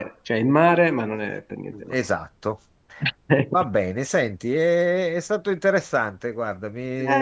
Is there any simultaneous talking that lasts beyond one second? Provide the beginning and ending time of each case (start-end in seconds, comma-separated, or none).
none